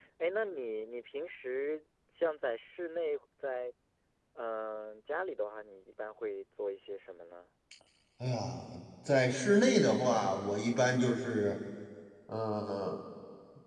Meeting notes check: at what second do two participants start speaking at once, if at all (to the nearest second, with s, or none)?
none